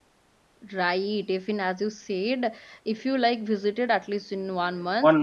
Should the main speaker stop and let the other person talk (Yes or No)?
No